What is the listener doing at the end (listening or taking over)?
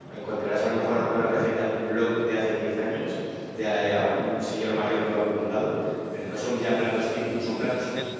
listening